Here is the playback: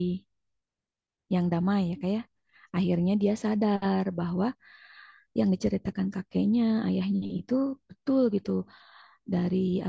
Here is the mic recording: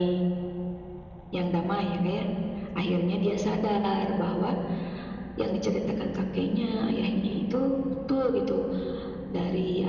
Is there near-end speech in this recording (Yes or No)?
No